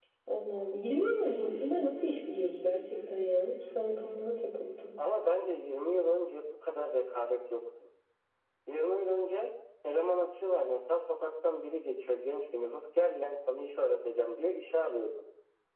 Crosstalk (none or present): none